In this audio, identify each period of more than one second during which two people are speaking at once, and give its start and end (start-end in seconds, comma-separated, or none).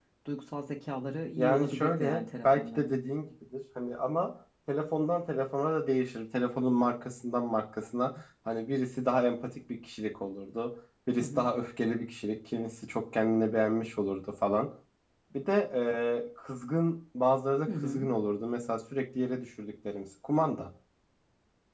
1.4-2.9